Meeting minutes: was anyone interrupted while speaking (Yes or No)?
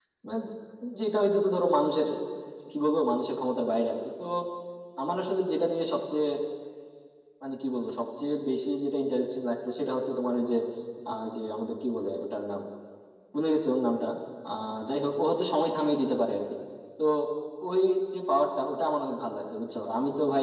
No